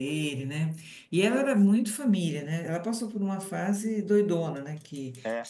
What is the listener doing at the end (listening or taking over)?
listening